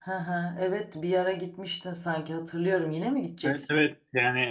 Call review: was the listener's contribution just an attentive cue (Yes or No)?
No